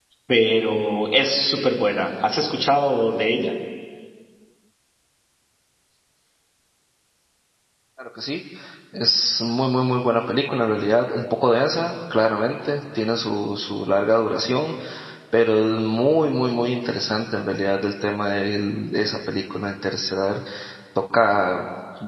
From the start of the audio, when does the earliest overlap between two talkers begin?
none

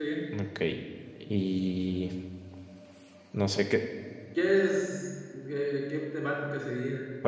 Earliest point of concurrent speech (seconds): none

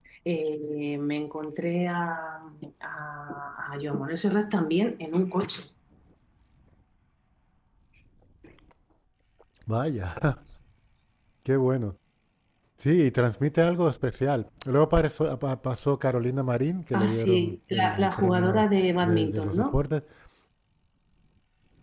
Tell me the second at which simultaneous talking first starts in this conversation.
16.9 s

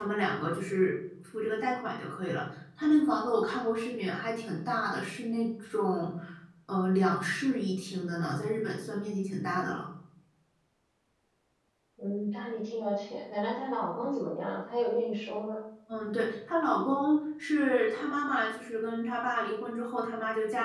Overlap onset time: none

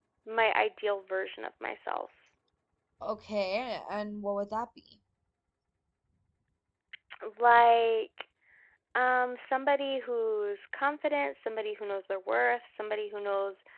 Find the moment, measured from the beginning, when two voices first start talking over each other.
none

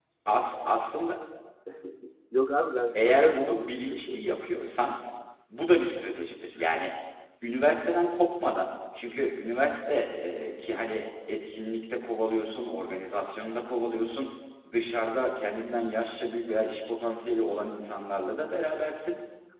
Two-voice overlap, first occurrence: 2.9 s

